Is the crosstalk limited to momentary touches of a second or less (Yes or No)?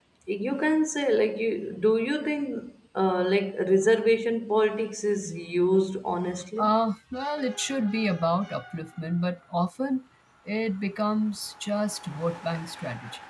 Yes